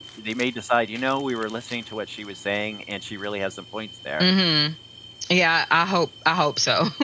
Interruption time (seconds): none

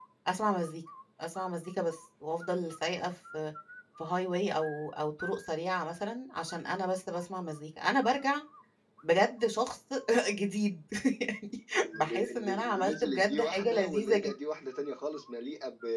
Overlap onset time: 12 s

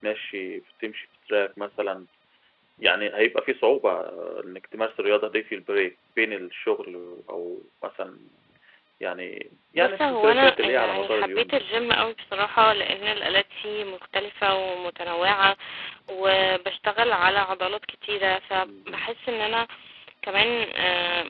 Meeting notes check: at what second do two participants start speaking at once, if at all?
10 s

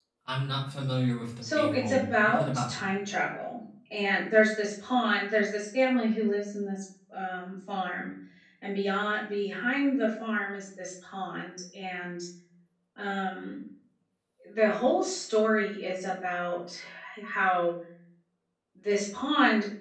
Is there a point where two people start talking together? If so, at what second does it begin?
1 s

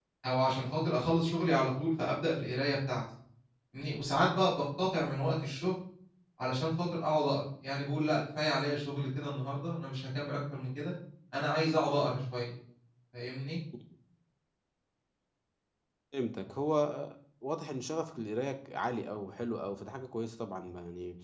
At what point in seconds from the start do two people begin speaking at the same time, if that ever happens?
none

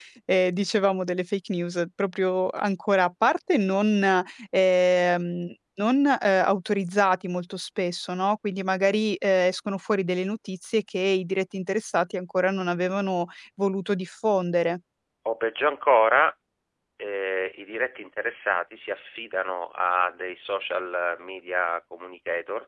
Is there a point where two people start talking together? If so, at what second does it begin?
none

